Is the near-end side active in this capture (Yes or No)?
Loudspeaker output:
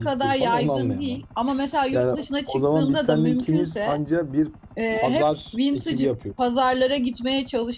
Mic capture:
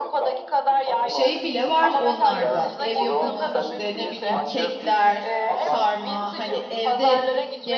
Yes